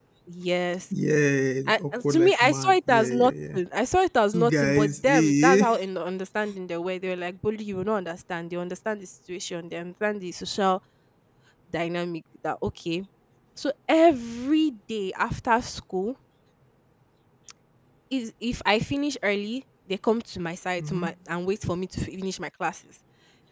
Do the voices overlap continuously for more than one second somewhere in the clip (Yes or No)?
Yes